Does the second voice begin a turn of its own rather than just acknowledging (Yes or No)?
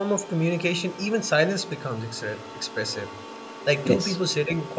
No